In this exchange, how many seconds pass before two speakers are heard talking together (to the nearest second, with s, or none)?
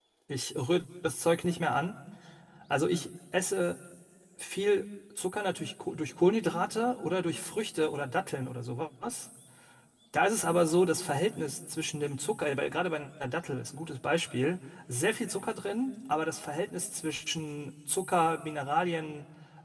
none